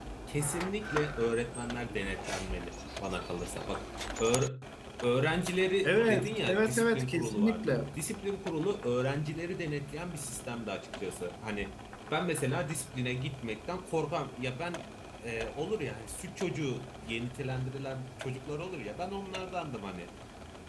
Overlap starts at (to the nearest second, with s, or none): 6 s